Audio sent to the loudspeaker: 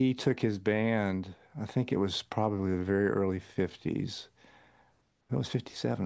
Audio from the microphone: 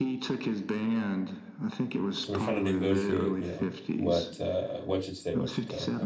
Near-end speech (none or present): present